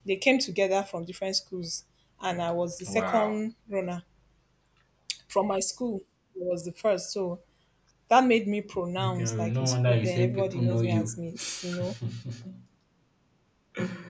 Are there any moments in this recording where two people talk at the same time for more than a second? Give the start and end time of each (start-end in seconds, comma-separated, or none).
9.0-11.0